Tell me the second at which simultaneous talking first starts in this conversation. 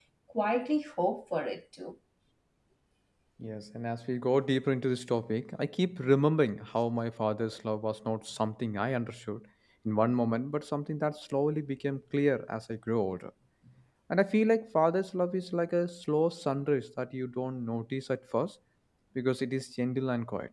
none

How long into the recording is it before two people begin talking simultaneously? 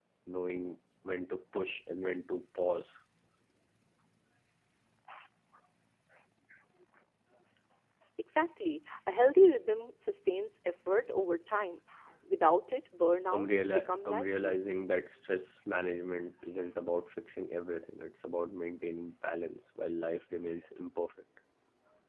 13.3 s

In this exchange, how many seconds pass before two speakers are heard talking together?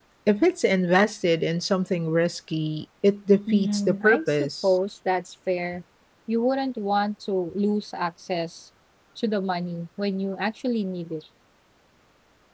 3.5 s

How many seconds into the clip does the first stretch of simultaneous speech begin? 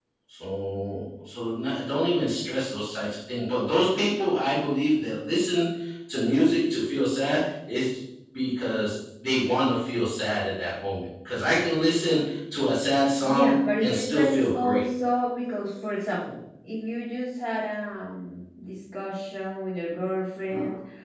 13.2 s

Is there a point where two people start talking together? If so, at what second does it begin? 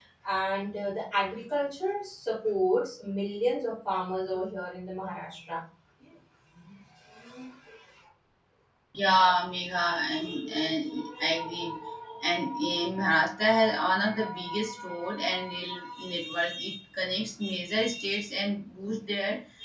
none

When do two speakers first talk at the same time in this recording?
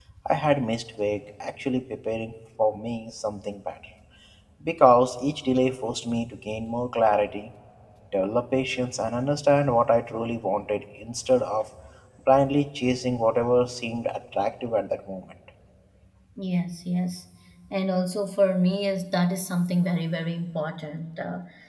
none

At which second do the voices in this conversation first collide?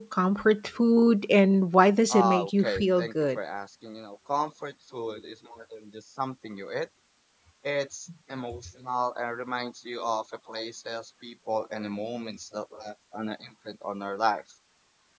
2.1 s

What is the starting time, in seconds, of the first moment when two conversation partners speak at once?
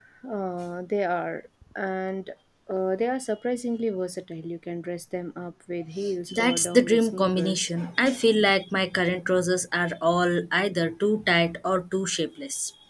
6.3 s

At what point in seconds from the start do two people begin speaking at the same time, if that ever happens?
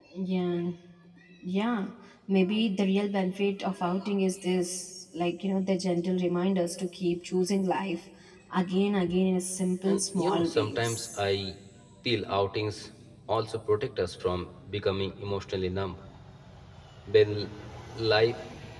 9.9 s

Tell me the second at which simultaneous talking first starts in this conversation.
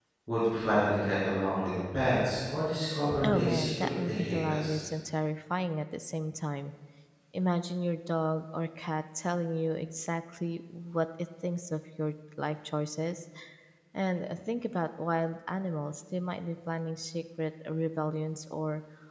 3.2 s

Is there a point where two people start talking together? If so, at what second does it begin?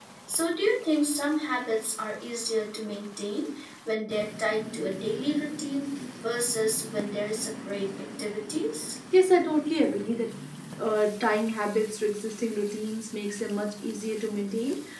none

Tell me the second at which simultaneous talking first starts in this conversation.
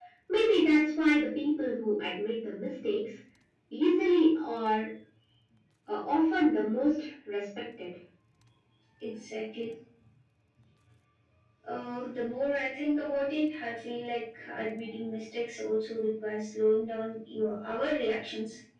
none

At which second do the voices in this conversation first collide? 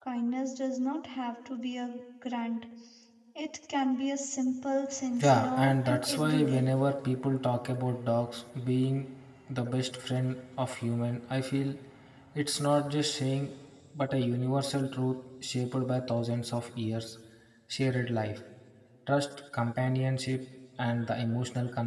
5.2 s

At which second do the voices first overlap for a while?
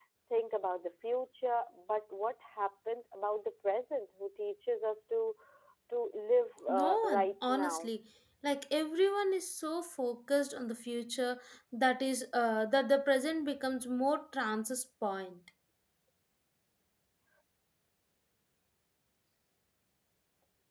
6.7 s

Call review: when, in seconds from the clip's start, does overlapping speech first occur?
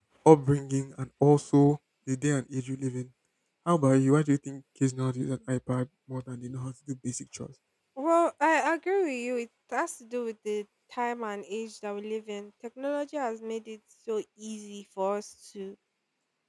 none

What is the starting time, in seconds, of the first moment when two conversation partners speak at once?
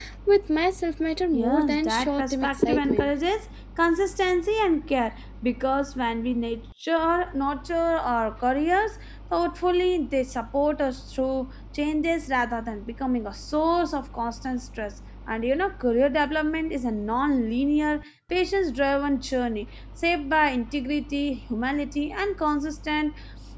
1.3 s

